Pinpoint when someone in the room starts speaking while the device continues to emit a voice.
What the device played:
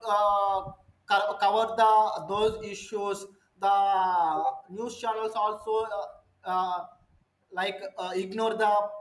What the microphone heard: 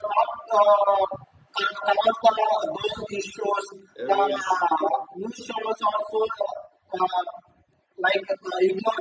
4.0 s

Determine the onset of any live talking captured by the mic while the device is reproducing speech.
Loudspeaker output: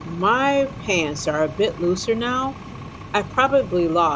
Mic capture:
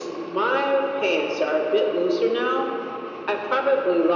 none

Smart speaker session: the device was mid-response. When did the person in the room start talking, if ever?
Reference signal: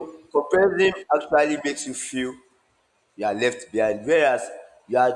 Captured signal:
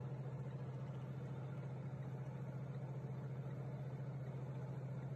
none

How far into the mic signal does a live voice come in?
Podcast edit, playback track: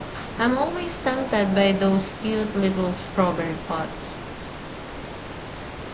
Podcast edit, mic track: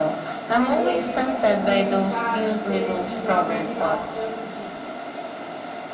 0.5 s

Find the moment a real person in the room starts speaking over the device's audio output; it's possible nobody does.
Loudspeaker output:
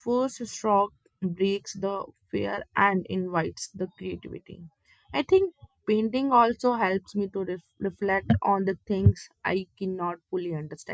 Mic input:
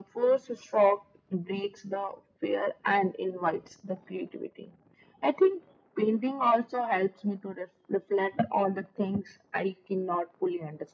none

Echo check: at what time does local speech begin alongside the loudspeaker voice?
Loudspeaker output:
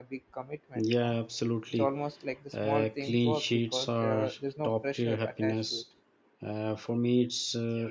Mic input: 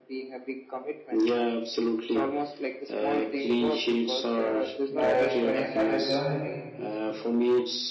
4.9 s

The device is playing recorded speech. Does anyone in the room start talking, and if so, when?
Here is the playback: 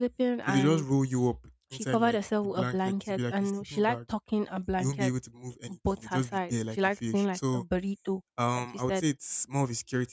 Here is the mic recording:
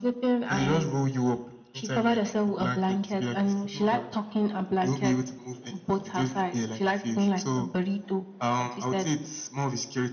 none

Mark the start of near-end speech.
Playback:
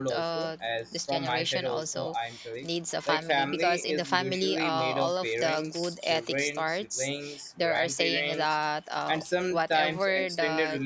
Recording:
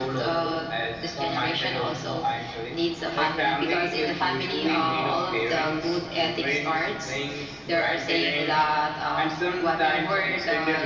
none

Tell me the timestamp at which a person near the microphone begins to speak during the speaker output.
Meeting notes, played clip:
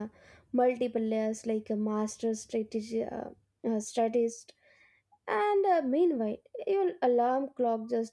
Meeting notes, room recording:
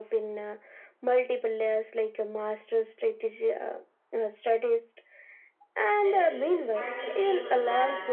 6.0 s

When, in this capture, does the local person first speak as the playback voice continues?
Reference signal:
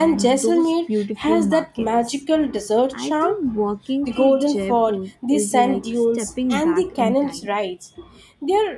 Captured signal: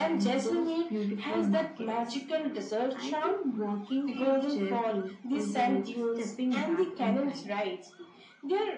none

